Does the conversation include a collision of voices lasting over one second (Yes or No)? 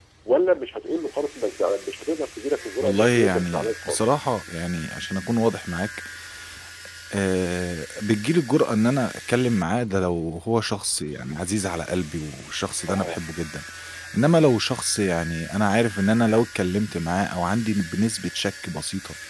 Yes